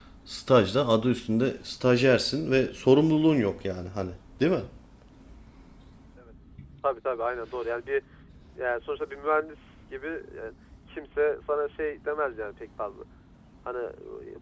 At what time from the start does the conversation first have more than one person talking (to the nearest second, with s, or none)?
none